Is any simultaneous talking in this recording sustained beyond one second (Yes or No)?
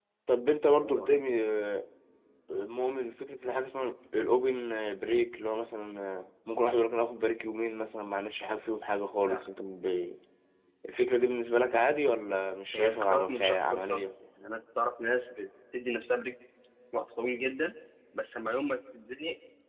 Yes